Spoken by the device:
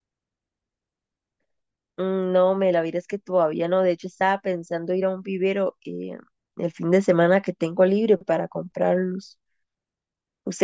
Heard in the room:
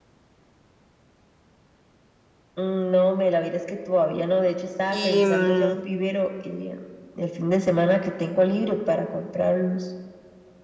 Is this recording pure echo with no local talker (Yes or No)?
No